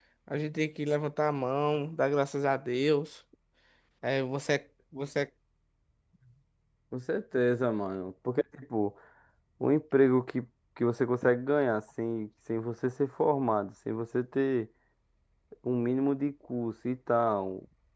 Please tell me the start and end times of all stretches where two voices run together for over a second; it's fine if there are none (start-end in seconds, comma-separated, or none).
none